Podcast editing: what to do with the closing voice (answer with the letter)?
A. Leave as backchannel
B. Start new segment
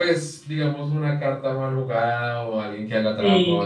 A